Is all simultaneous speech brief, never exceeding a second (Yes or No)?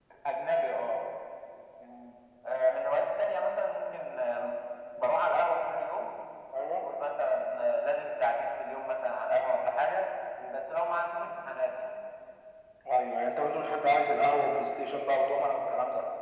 Yes